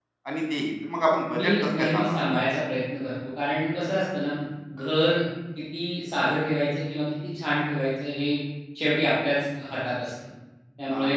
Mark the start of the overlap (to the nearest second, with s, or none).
1 s